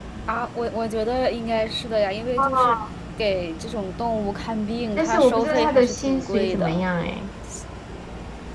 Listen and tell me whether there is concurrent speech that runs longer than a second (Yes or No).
Yes